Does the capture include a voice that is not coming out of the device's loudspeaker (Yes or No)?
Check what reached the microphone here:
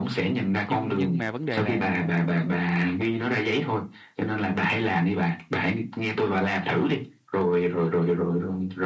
Yes